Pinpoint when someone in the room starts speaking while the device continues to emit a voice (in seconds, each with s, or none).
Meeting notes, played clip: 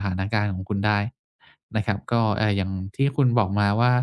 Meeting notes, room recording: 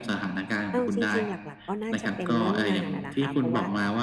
0.7 s